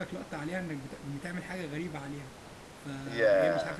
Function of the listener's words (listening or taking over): listening